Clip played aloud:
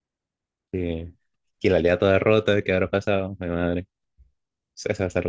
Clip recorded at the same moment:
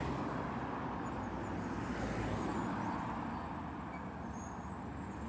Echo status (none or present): none